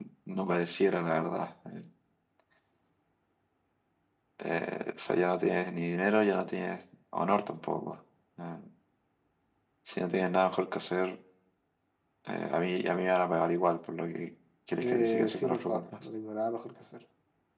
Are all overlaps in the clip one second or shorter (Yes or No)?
No